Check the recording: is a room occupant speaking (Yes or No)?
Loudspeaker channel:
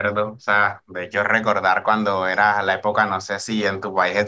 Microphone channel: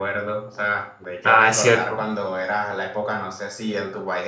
Yes